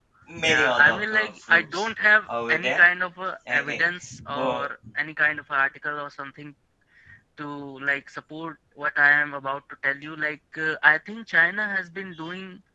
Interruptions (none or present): present